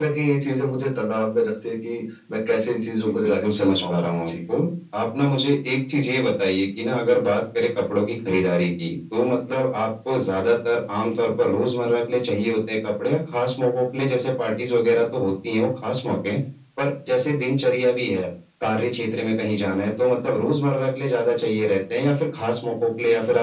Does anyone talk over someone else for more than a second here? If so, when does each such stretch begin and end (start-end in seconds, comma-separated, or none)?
3.0-4.3